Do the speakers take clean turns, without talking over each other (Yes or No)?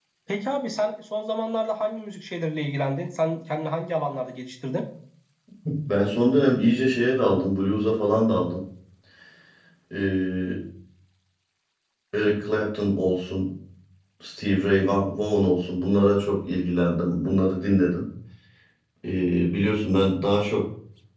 Yes